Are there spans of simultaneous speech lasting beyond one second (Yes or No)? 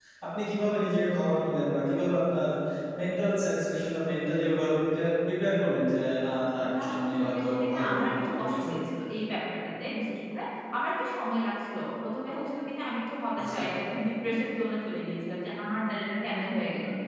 Yes